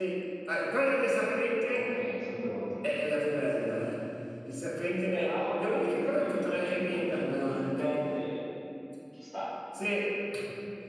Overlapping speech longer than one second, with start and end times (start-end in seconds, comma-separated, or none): 5.1-8.1